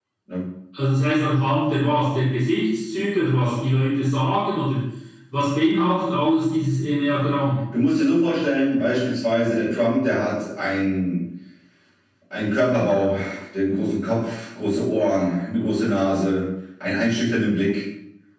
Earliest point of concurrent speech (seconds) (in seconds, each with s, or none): none